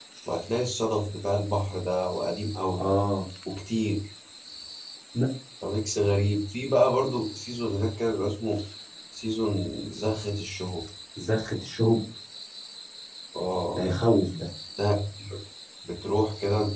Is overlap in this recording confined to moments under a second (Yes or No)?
Yes